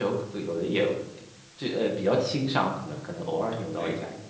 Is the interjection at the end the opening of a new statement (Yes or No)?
Yes